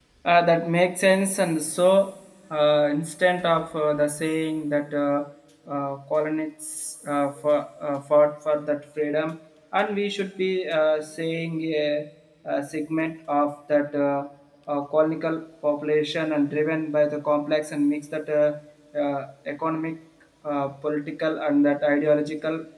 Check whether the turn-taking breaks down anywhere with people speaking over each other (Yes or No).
No